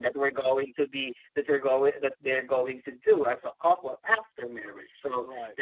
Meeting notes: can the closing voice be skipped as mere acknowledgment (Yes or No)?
Yes